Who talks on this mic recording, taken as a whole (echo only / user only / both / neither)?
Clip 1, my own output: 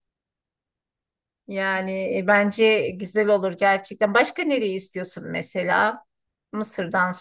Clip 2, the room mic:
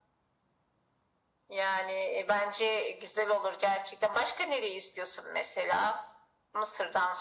echo only